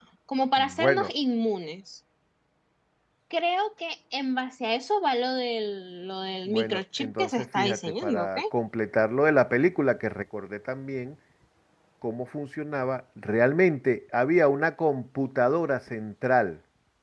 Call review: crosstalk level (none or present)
present